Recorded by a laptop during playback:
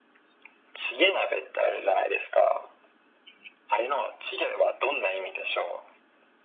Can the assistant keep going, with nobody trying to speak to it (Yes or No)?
Yes